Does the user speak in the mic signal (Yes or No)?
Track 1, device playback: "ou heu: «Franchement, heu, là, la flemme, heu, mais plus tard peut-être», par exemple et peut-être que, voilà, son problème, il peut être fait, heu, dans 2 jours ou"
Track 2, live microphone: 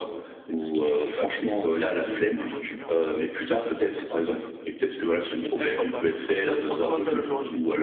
Yes